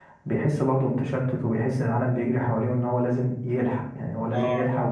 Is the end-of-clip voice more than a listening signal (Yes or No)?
No